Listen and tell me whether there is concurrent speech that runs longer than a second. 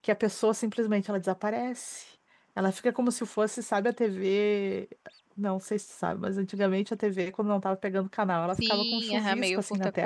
Yes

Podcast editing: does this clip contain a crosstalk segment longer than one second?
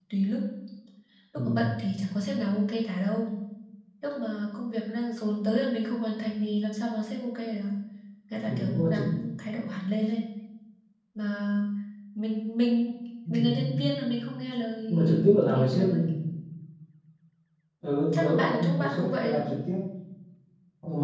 Yes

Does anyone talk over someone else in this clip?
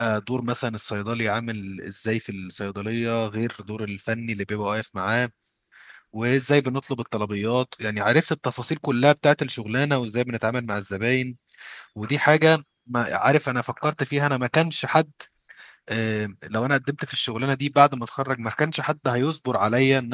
No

